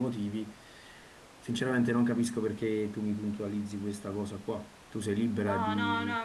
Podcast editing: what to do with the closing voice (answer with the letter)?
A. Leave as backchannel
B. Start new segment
B